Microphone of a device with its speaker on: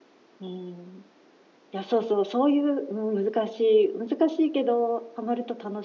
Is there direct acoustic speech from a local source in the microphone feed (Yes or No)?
Yes